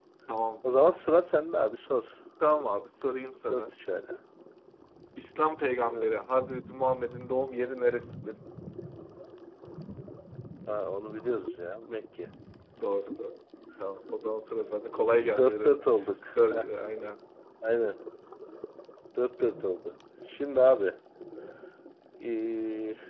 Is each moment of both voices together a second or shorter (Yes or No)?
Yes